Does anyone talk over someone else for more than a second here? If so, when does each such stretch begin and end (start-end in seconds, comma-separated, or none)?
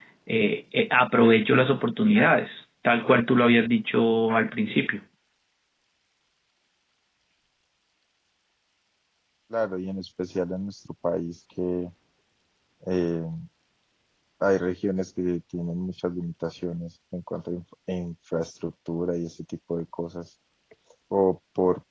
none